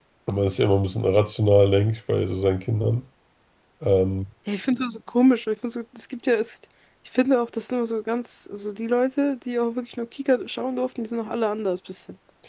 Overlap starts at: none

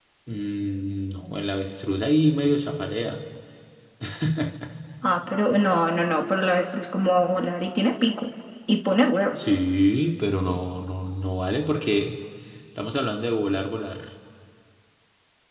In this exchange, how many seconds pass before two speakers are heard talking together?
none

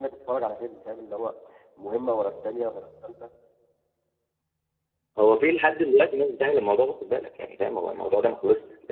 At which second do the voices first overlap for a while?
none

